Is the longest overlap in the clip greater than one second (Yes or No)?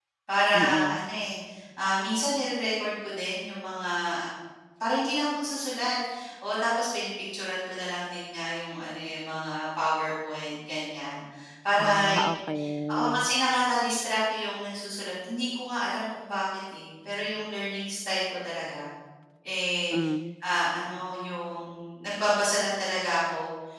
No